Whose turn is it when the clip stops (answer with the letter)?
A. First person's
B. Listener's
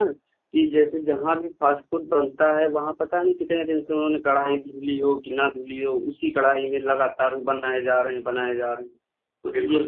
B